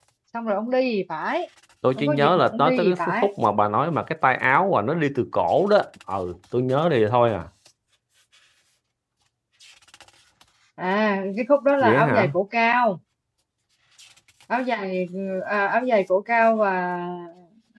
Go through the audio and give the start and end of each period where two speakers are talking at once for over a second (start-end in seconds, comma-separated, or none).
2.0-3.3